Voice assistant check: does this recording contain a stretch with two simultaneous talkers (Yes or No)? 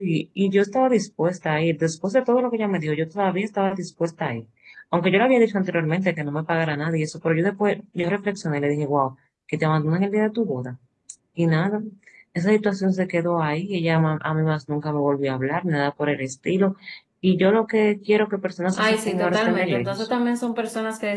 Yes